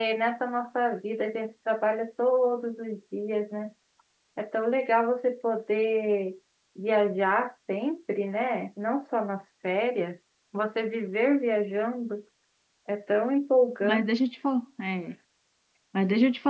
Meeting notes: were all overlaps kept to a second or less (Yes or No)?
Yes